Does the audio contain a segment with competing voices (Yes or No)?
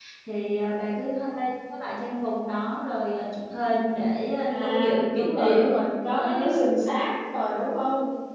Yes